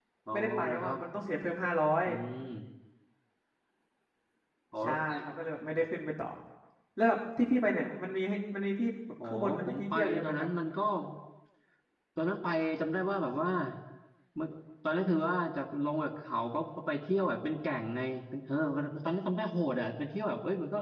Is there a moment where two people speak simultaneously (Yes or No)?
Yes